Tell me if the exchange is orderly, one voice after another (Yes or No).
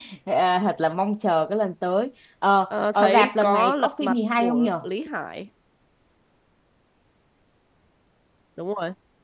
No